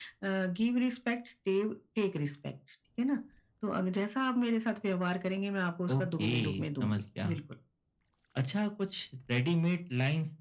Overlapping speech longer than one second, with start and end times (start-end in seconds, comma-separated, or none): 6.0-7.4